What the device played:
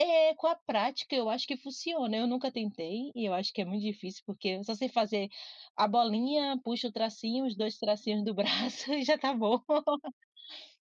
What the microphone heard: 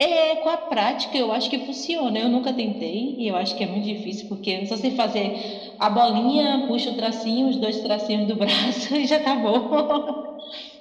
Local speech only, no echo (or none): none